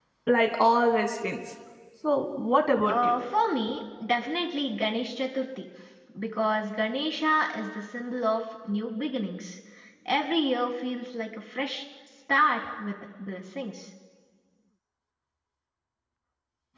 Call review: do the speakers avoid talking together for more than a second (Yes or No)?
Yes